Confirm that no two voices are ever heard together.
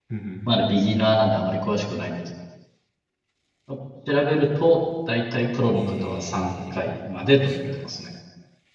No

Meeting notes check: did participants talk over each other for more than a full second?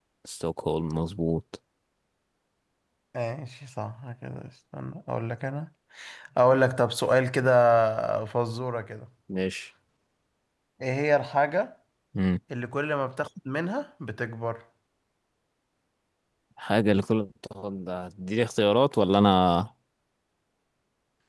No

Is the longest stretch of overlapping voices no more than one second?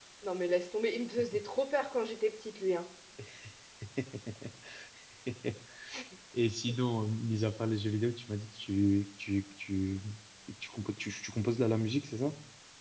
Yes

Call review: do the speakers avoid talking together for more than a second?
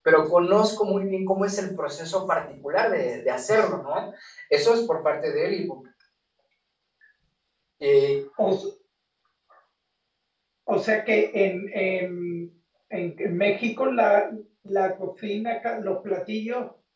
Yes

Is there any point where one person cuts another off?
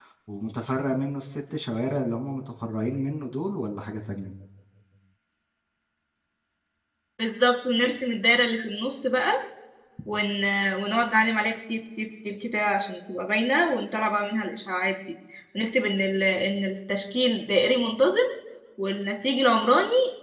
No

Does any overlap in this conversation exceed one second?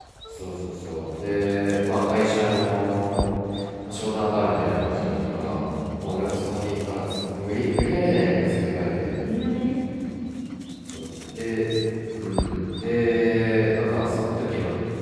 Yes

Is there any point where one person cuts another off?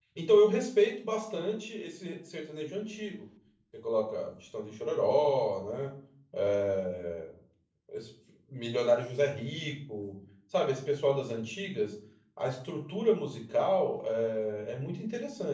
No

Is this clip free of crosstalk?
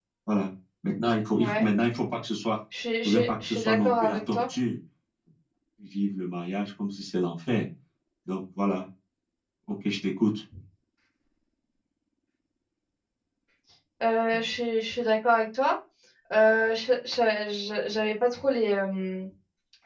No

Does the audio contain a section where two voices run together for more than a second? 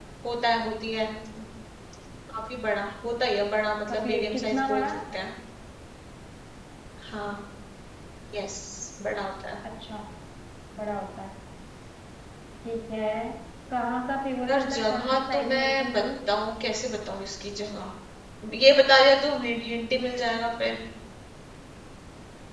Yes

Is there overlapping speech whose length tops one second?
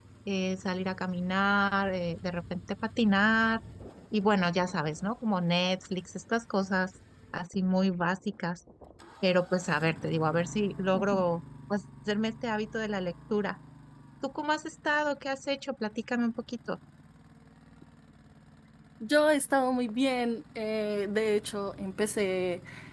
No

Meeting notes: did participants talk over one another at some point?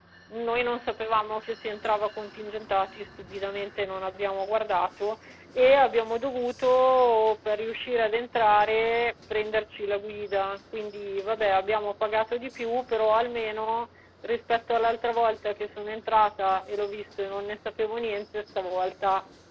No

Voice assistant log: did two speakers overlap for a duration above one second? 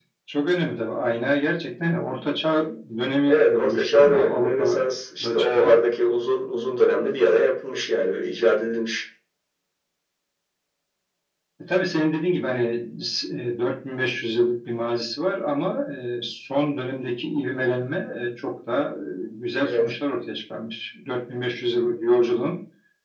Yes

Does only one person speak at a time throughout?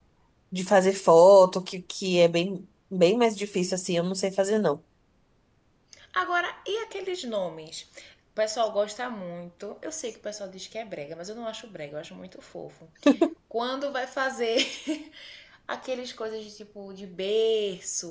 Yes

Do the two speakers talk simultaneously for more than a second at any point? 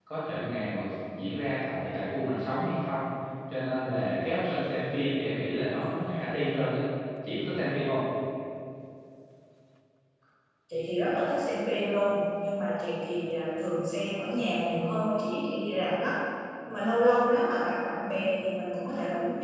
No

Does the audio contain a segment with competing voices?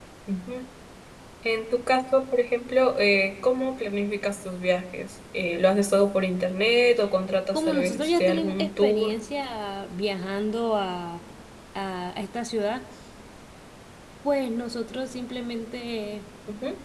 Yes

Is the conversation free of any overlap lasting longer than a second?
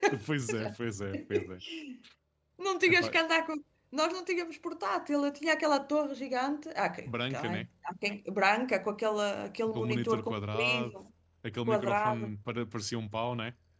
No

